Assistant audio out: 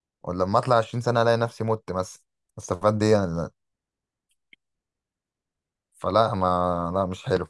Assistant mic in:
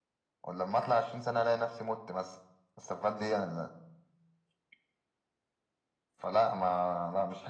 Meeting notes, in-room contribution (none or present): none